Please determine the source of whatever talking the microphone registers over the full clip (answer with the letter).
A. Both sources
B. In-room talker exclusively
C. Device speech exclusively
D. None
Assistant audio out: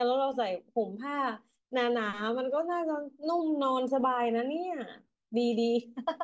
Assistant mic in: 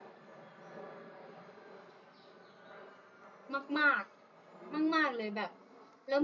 B